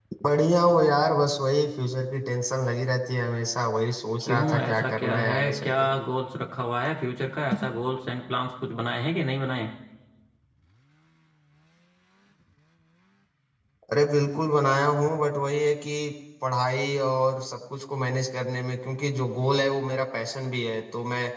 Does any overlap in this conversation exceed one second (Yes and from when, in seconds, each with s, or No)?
Yes, from 4.3 s